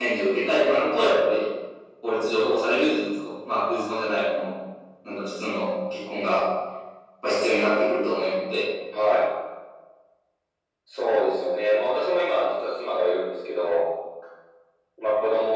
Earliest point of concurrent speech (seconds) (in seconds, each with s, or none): none